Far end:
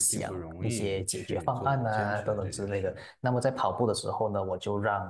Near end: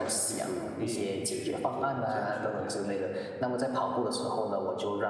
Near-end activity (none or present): none